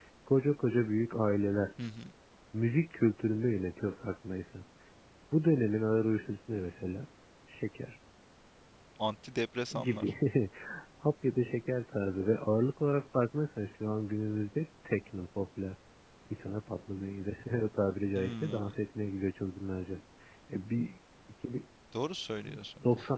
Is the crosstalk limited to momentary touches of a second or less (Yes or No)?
Yes